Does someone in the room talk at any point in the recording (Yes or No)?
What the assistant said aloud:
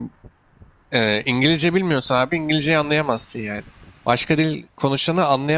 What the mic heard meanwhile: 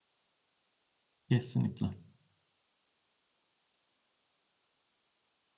Yes